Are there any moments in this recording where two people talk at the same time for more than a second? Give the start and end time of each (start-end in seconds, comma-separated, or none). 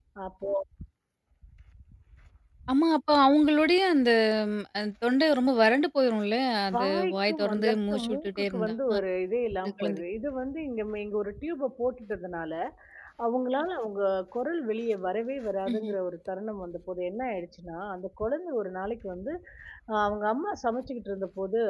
6.7-8.7